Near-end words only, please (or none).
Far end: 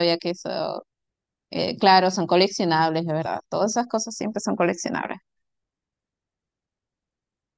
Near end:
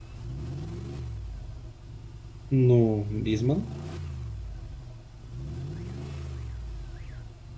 No, Disman.